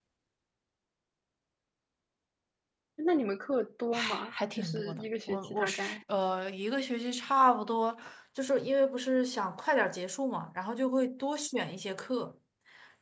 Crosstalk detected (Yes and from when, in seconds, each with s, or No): Yes, from 3.9 s